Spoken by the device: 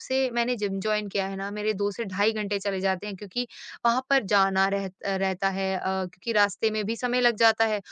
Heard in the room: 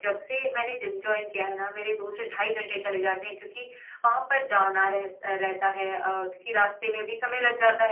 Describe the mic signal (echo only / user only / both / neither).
echo only